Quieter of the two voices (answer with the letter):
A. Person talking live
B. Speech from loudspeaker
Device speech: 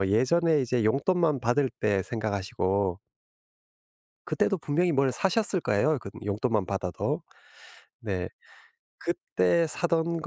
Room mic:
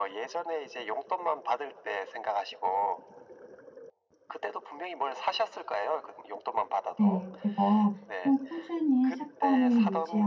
B